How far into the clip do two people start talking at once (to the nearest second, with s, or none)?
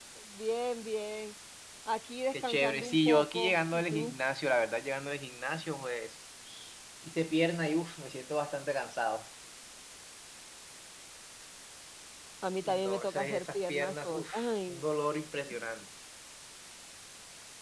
2 s